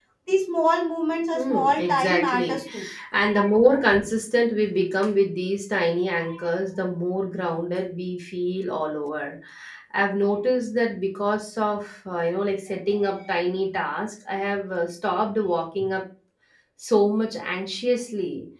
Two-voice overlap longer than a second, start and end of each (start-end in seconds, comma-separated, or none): 1.3-2.6